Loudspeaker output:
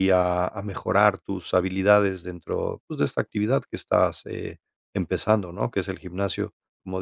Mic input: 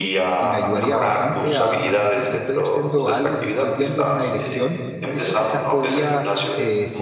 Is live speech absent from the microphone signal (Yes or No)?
No